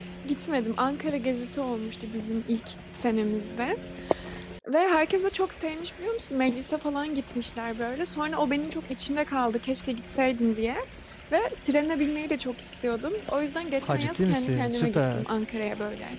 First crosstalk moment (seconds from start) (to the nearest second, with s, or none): 14 s